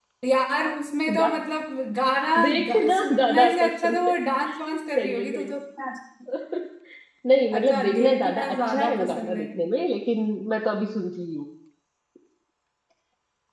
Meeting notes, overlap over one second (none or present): present